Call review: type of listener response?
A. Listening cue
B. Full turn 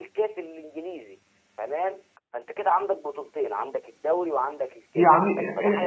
B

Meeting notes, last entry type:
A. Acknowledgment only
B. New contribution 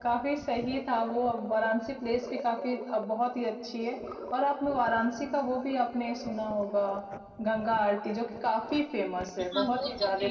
B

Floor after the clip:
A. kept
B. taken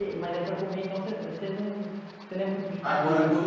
B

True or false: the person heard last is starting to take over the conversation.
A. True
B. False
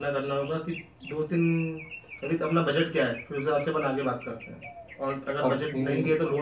B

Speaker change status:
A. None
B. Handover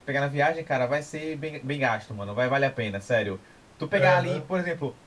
A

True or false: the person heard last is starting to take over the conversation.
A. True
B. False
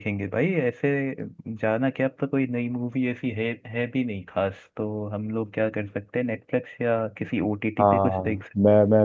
A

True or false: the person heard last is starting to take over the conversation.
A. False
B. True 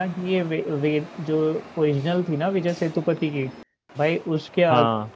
A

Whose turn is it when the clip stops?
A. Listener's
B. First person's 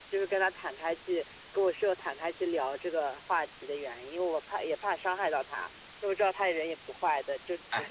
A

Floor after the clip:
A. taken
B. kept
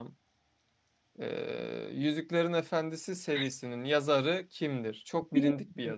A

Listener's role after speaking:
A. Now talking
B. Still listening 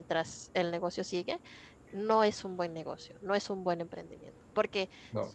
B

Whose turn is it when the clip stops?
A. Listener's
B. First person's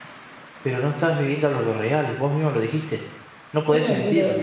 A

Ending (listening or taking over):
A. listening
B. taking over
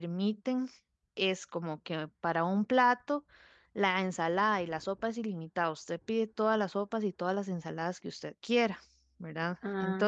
B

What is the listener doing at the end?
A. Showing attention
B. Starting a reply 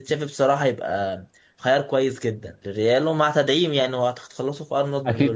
B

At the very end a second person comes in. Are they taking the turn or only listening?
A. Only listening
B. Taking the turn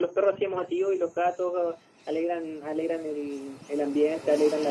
A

